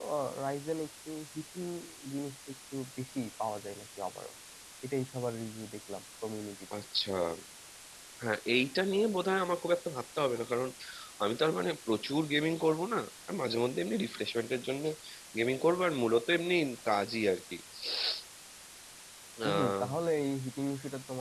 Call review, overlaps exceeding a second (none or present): none